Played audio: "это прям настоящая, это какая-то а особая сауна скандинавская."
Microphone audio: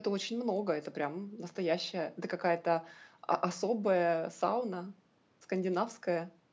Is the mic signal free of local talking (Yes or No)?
Yes